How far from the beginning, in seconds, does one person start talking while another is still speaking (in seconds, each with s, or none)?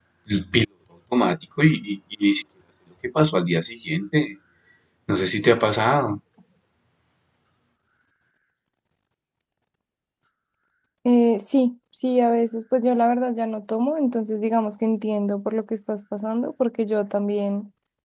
none